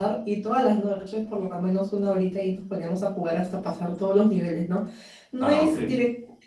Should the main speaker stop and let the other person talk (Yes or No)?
No